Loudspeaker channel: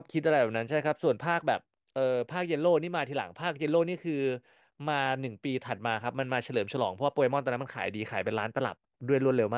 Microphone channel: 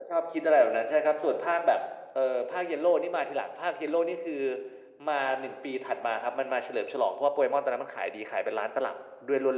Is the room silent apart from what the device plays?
Yes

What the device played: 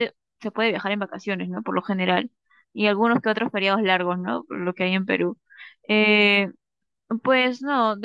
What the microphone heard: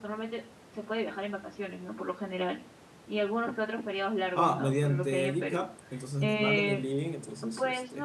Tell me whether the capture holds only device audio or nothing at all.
No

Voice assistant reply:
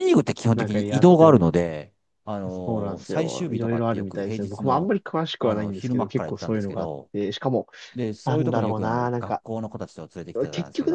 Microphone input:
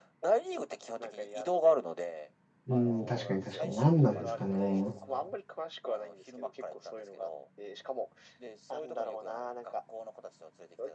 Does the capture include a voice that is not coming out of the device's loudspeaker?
Yes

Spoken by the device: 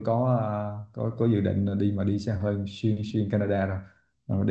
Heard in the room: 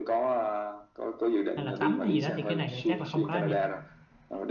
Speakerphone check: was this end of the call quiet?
No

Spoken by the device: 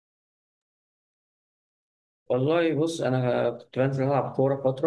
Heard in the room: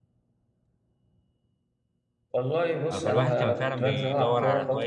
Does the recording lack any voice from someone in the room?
No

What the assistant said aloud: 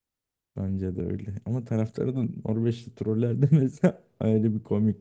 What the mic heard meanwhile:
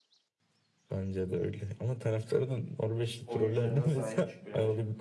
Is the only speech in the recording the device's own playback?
No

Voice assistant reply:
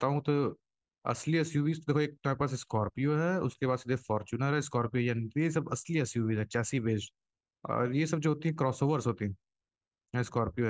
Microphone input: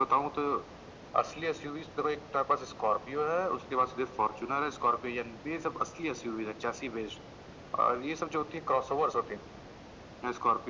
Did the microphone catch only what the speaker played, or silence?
Yes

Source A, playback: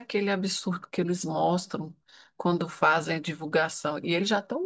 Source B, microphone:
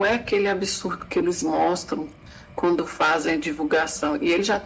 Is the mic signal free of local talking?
Yes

